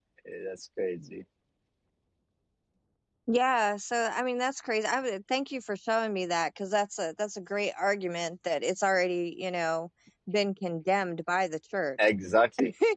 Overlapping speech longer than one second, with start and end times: none

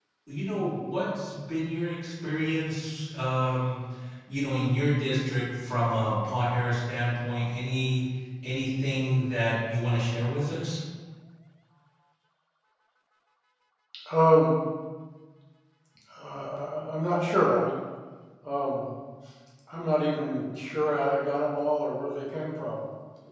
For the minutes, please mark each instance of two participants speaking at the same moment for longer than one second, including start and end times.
none

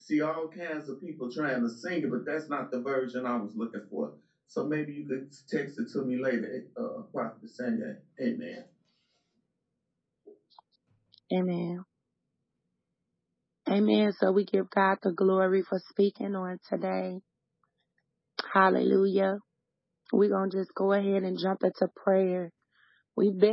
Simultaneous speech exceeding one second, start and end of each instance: none

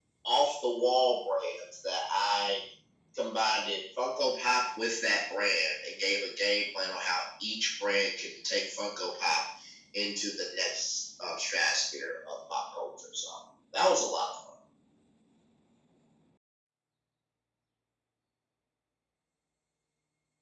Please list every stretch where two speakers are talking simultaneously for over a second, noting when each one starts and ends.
none

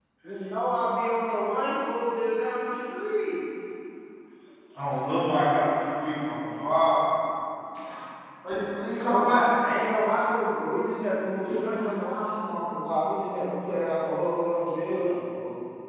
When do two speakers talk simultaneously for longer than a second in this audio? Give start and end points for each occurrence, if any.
none

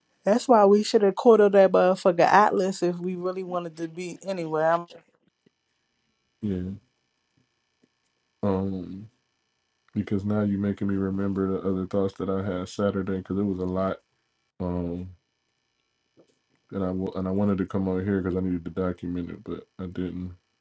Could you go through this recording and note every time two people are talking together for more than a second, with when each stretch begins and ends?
none

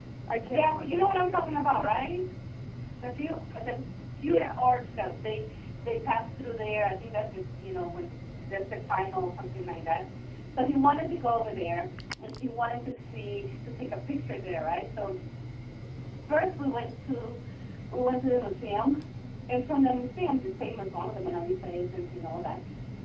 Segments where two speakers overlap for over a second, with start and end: 0.5-1.9

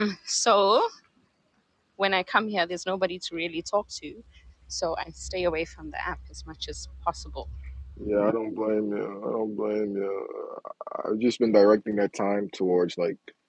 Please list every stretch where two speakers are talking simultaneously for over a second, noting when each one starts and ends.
none

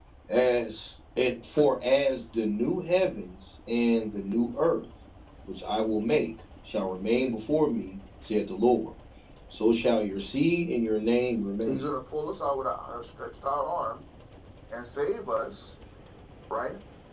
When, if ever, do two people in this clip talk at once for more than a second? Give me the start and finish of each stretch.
none

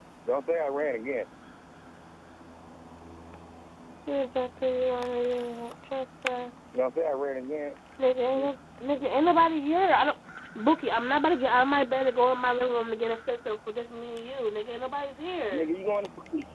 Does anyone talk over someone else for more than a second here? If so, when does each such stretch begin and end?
none

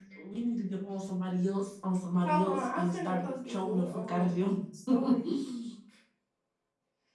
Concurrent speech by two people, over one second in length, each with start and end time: 2.3-4.3

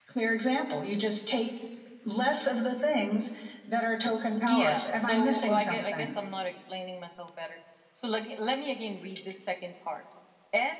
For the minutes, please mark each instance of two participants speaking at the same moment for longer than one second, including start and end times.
4.4-6.1

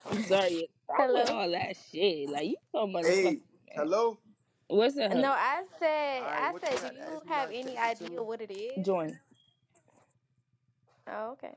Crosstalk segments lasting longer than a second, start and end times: 6.2-8.2

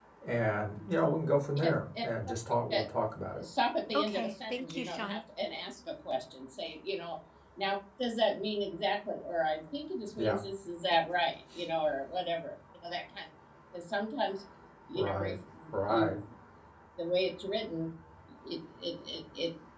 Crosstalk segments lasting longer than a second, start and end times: 3.9-5.2

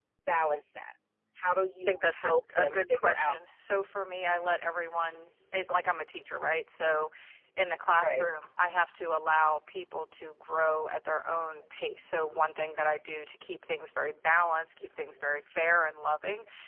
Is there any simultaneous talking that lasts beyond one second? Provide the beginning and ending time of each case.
1.9-3.4

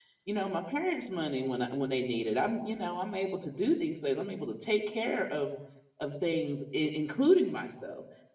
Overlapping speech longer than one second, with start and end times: none

